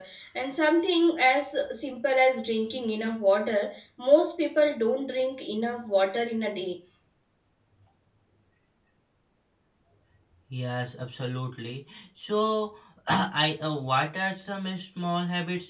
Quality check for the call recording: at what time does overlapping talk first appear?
none

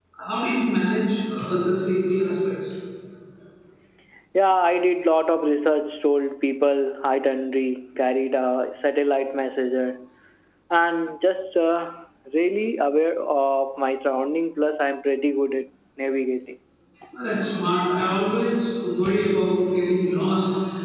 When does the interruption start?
none

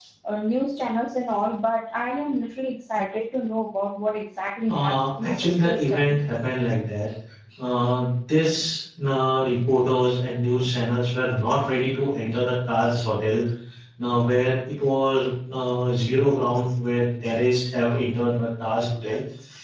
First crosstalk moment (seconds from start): 4.7 s

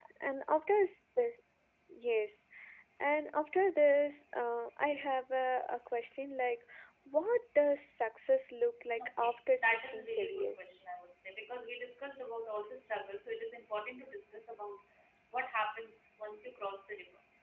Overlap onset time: 9.0 s

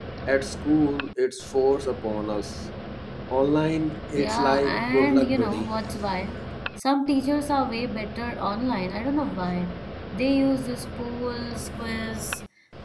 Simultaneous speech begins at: 4.2 s

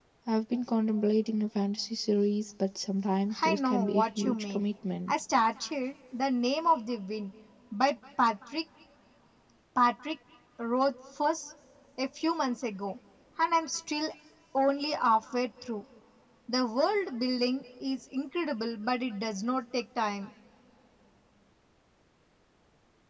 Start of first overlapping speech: 3.3 s

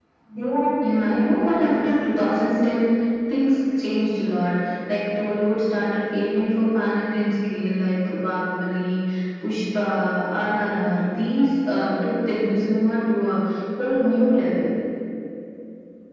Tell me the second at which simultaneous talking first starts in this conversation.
0.8 s

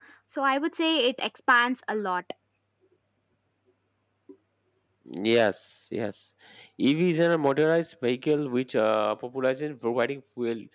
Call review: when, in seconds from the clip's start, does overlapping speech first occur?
none

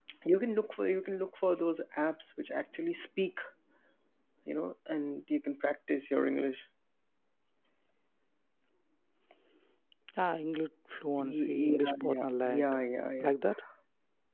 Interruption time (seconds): 11.2 s

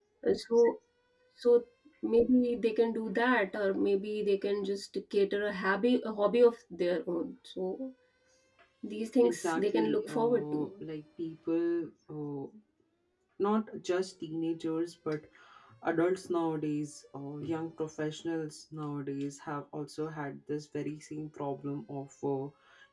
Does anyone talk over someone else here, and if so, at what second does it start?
9.2 s

